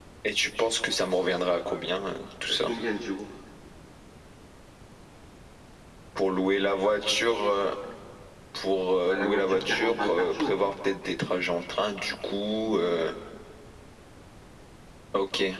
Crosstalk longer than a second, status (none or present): present